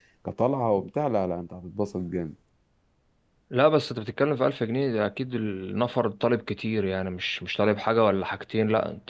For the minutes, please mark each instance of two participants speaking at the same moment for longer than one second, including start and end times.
none

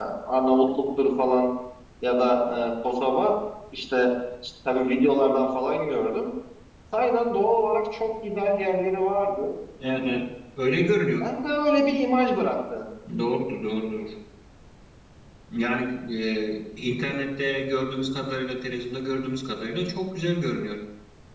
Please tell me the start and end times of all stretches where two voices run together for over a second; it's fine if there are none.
none

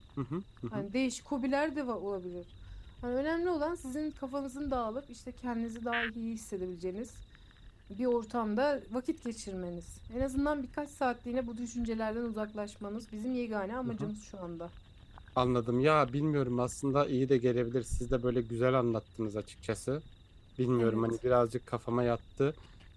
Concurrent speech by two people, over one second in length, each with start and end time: none

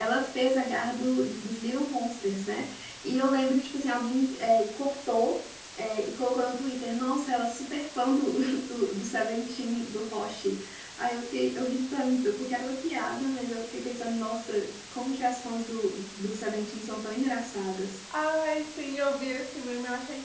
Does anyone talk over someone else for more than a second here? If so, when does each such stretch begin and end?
none

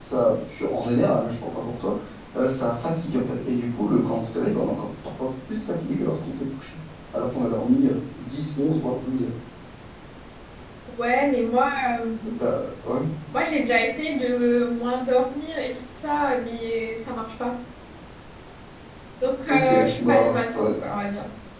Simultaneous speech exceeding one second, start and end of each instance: 19.5-20.7

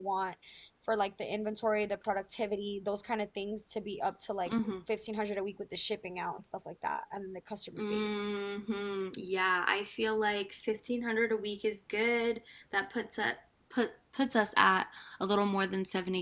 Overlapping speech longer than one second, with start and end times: none

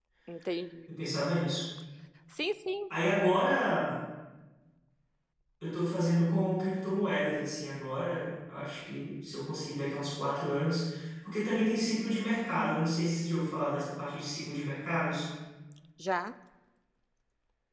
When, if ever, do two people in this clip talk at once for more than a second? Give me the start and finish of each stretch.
none

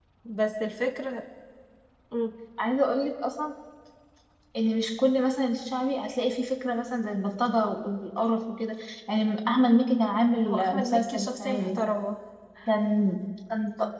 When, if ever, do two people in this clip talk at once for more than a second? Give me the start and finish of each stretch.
10.5-11.8

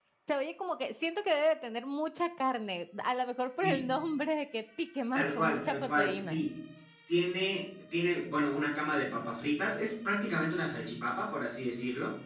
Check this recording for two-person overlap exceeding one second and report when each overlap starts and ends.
5.2-6.5

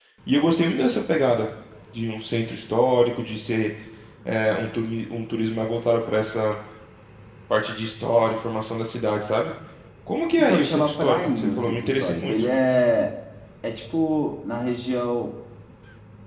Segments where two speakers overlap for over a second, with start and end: 10.4-12.4

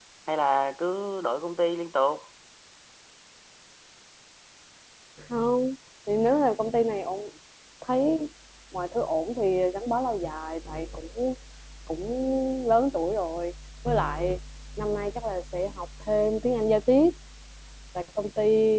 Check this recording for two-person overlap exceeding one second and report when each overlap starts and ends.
none

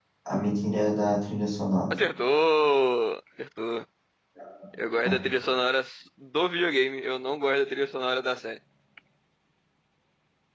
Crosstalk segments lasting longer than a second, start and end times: none

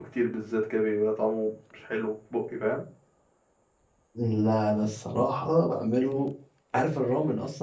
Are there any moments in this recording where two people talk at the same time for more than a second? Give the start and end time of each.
none

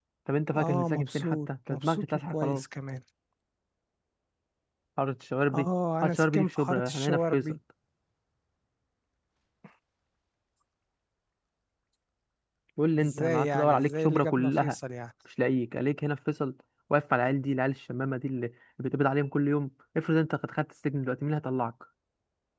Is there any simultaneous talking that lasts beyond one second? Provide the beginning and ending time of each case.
0.5-2.6, 6.0-7.5, 13.0-14.7

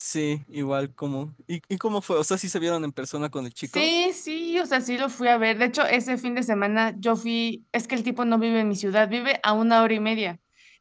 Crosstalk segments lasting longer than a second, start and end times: none

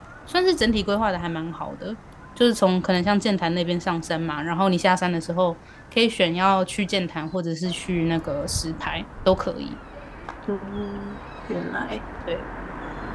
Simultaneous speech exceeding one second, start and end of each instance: none

